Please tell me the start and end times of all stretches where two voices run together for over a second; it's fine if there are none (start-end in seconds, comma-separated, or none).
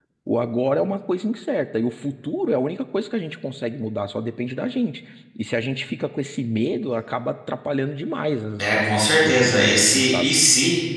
8.6-10.3